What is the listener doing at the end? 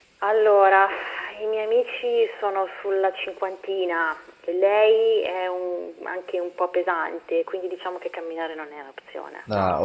taking over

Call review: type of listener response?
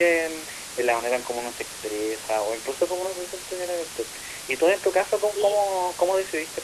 listening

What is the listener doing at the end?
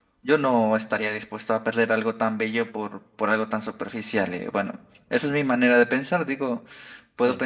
listening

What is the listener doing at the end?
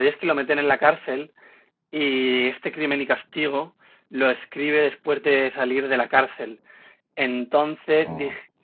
listening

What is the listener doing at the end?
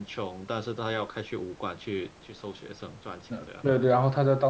taking over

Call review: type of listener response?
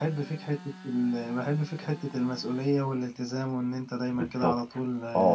taking over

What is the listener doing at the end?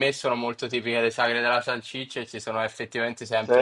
listening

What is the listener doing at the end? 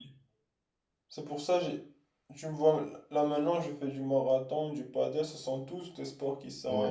taking over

